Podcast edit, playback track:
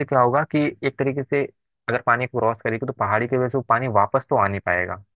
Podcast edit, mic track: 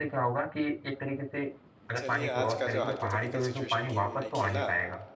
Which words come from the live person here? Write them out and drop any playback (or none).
चलिए आज का जो हाइपोथेटिकल सिचुएशन गेम हमने खेला